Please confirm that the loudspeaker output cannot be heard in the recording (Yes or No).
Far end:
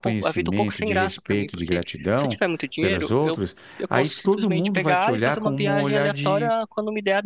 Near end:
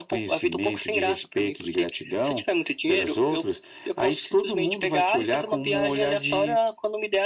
No